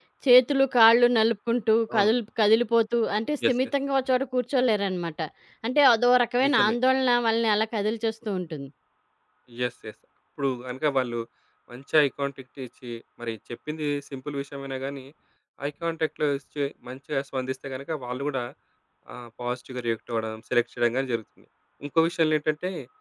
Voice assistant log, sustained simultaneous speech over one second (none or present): none